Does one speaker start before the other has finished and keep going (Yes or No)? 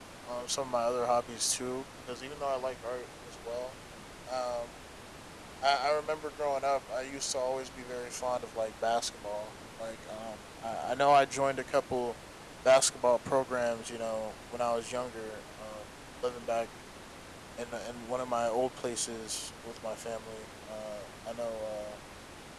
No